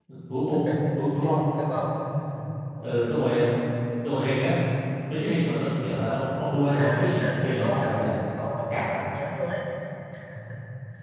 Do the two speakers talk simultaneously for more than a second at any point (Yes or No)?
Yes